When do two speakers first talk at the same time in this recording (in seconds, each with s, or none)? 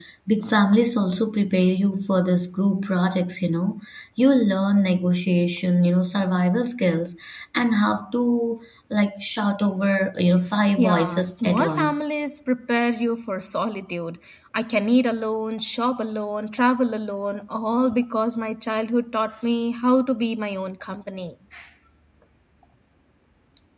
10.8 s